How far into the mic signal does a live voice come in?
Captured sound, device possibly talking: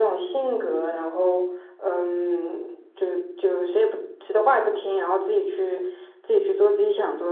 none

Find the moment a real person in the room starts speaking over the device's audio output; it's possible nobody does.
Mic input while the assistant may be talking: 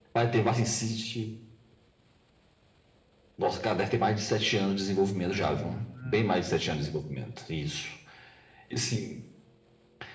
5.3 s

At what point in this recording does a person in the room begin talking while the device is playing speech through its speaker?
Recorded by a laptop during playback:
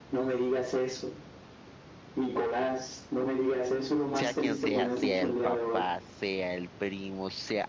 4.1 s

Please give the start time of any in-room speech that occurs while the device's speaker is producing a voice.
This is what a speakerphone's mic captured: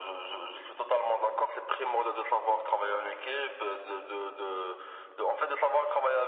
none

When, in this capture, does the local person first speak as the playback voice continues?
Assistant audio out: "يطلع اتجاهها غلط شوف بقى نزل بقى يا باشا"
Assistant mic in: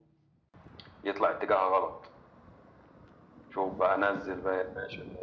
none

